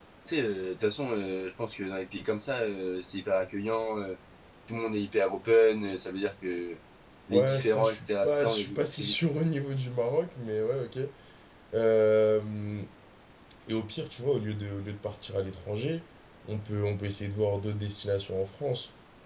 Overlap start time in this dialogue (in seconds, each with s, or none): 7.3 s